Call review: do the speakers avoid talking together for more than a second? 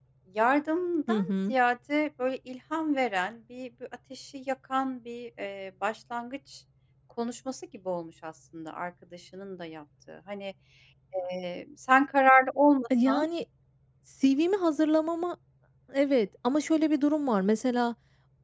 Yes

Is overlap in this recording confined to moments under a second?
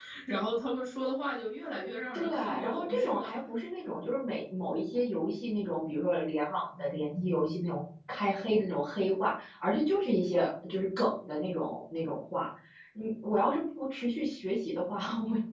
No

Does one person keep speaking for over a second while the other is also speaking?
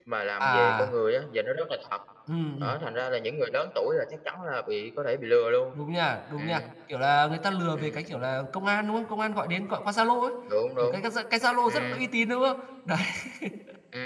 No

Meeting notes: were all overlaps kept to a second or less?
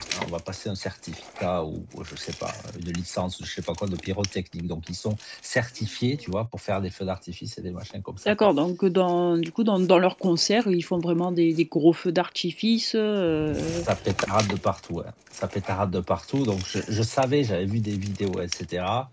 Yes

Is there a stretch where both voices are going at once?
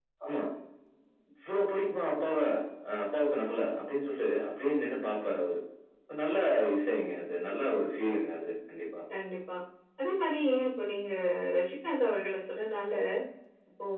No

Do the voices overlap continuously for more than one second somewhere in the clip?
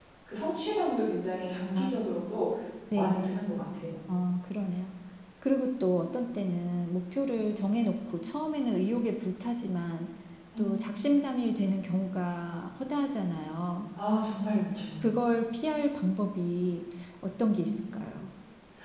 No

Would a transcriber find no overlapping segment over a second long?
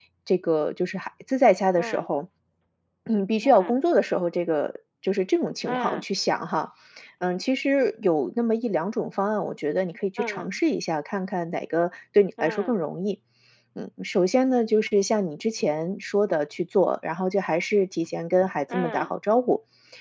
Yes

